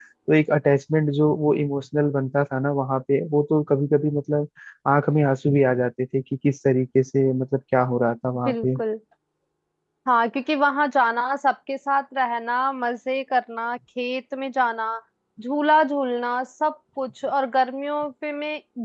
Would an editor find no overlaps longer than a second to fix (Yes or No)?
Yes